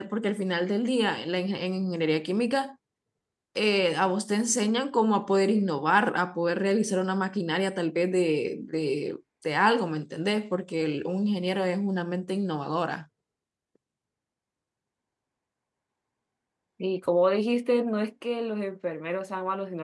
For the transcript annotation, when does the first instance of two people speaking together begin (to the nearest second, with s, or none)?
none